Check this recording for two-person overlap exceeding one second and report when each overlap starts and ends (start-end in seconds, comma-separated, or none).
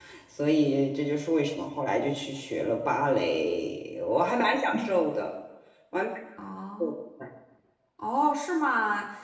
none